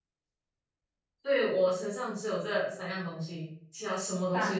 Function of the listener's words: taking over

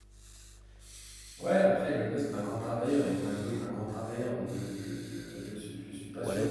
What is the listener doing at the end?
taking over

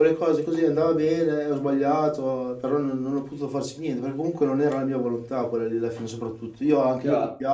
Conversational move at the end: taking over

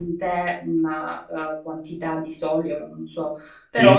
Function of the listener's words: listening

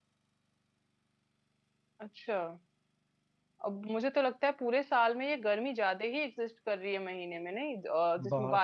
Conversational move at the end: listening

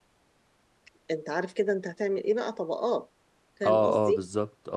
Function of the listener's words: taking over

